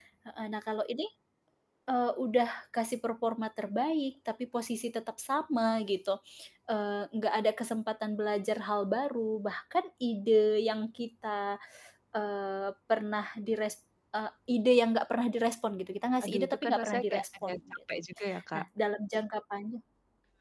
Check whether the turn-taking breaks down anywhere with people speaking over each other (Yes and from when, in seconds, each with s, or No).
Yes, from 16.2 s